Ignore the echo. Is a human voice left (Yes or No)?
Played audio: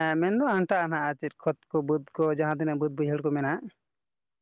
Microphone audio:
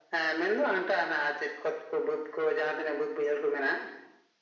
No